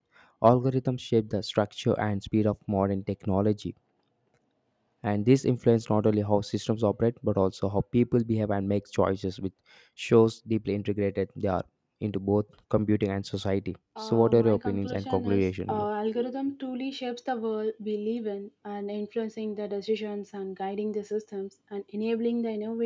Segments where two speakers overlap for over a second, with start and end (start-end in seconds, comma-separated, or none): 14.0-15.8